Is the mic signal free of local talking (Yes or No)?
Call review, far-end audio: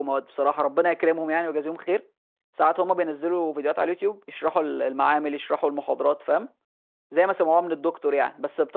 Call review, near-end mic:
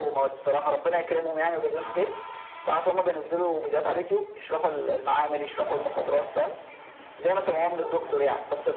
Yes